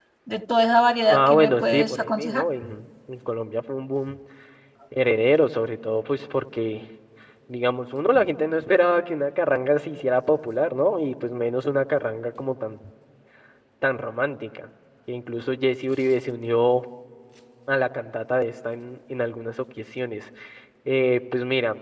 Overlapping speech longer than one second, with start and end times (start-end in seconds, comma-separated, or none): 1.1-2.5